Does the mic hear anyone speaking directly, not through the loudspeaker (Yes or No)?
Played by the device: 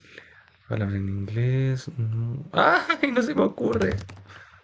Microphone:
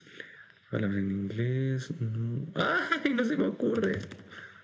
No